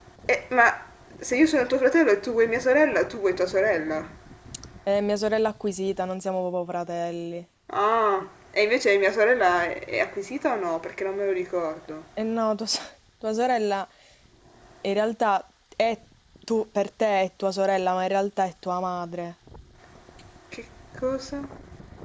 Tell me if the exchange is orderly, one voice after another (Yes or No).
Yes